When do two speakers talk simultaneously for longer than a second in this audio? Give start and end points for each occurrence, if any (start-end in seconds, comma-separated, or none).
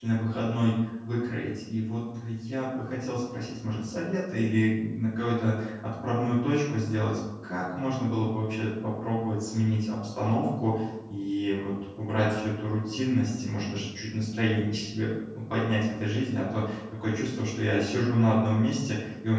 none